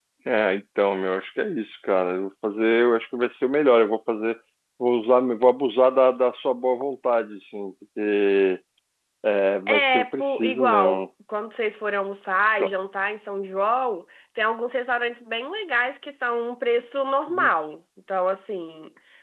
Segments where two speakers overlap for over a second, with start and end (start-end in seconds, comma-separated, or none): 9.7-11.1